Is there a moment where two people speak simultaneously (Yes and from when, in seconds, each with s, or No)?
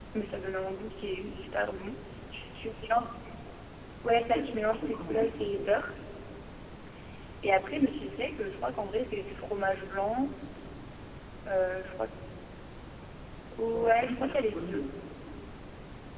Yes, from 4.3 s